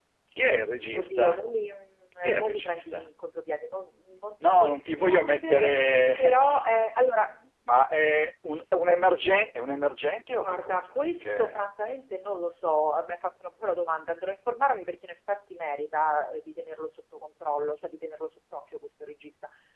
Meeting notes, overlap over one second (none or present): present